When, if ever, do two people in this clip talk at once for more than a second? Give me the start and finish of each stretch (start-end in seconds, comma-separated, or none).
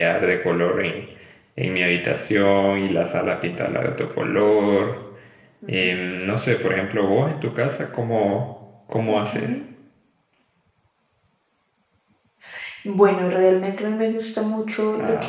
none